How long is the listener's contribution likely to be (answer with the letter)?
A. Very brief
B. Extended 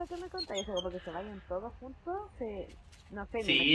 B